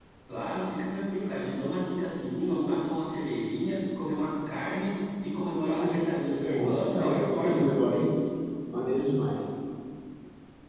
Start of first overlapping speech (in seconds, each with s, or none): 5.7 s